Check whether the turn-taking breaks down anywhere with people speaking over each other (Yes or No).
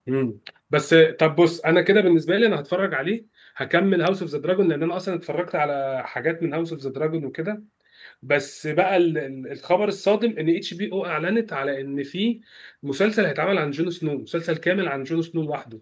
No